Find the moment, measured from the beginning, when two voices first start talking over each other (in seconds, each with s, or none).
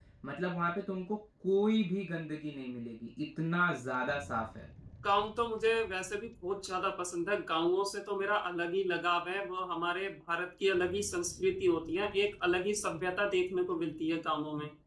none